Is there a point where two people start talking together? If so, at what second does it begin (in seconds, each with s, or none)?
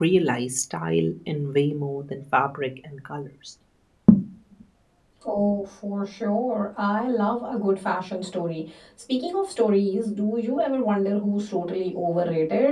none